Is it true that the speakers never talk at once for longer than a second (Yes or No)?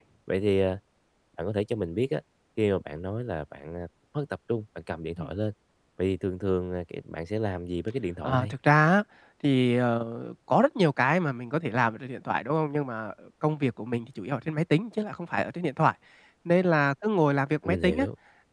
Yes